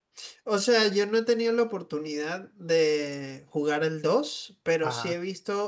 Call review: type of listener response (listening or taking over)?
listening